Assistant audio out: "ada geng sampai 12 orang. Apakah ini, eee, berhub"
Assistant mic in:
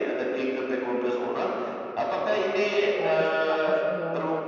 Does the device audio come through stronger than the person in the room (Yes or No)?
Yes